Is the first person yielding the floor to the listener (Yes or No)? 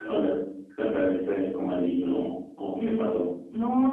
Yes